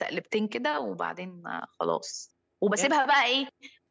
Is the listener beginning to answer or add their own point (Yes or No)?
No